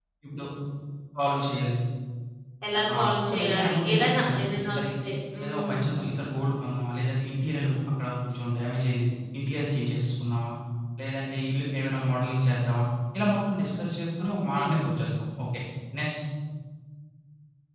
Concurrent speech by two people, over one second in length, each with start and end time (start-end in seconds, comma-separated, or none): 2.9-4.8